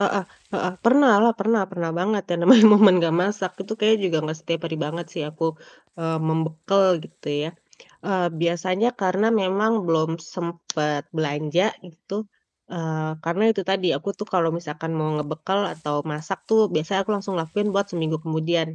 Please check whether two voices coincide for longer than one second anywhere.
No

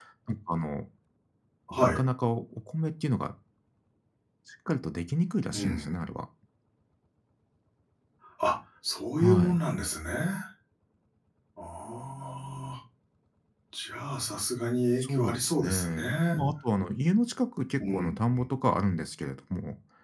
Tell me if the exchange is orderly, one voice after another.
No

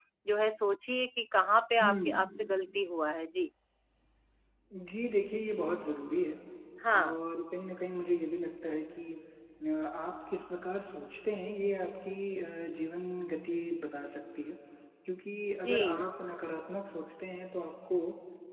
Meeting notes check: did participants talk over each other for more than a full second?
No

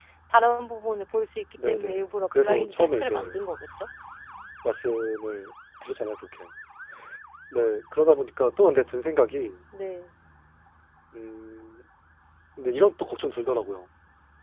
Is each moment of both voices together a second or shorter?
No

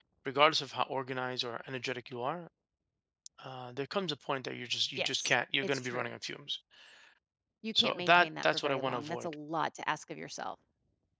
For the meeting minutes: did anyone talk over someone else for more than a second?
Yes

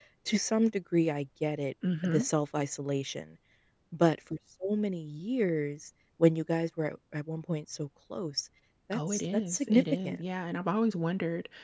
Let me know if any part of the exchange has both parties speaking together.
Yes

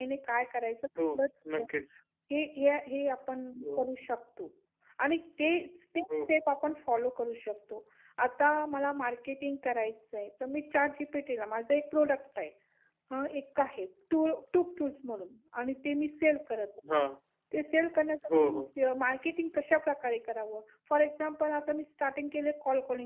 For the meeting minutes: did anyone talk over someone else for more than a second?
No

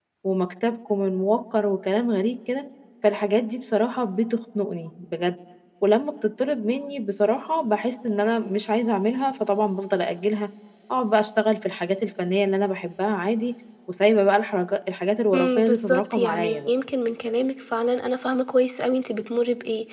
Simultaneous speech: Yes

